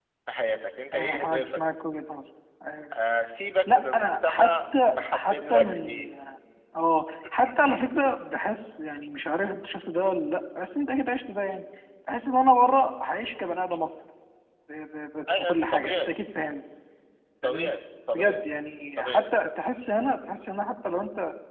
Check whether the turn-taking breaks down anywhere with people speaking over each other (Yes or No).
Yes